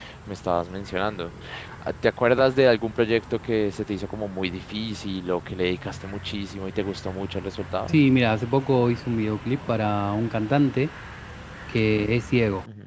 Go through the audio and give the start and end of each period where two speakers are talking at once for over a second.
none

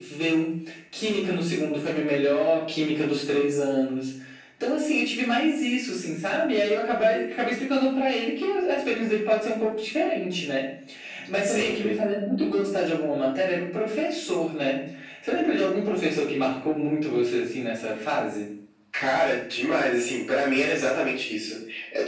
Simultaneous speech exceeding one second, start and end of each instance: none

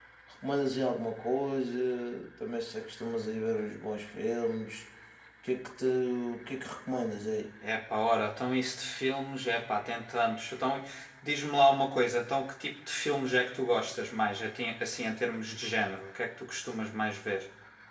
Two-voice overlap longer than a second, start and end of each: none

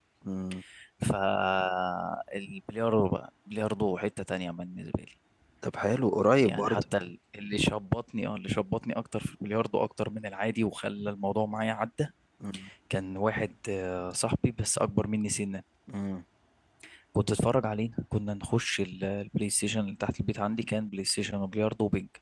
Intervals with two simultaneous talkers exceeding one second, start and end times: none

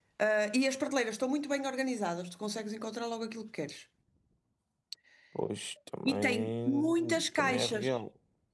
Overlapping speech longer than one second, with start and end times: 6.0-7.9

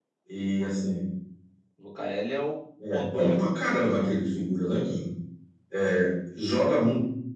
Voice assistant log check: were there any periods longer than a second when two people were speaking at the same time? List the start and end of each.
2.9-4.1

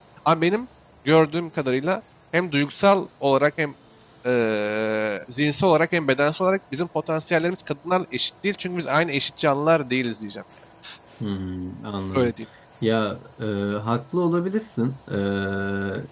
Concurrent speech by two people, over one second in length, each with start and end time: none

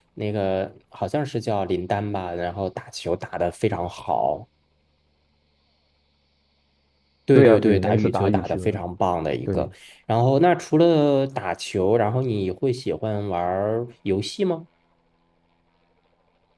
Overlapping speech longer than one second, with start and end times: 7.3-8.8

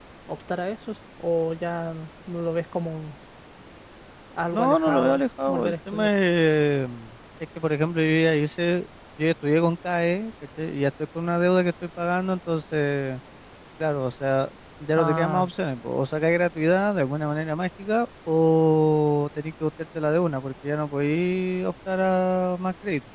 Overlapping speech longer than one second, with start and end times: 4.5-6.1

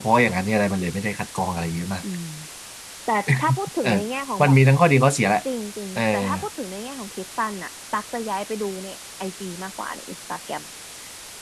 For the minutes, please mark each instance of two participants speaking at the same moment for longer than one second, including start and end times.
none

